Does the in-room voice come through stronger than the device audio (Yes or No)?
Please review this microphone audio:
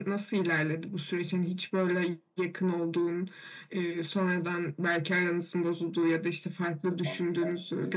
No